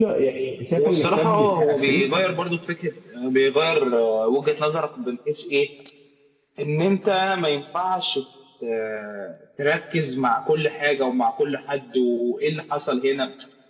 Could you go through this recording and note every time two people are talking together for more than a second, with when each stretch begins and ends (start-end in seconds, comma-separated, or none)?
0.8-2.0